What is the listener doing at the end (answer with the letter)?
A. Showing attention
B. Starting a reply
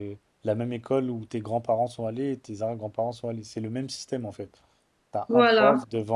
A